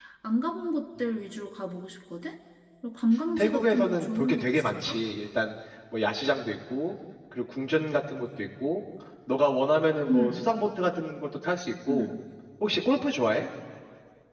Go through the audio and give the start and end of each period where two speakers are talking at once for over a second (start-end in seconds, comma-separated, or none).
3.4-5.0